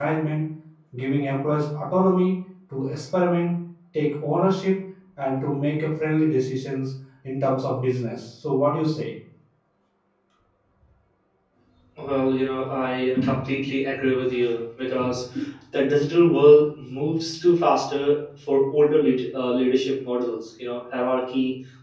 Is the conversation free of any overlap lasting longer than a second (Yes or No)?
Yes